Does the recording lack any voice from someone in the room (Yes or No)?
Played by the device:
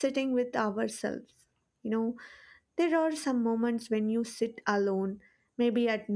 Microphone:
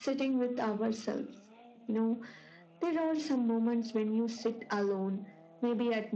Yes